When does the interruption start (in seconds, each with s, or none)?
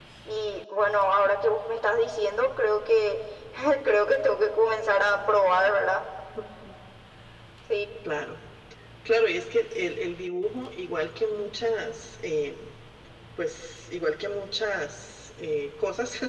none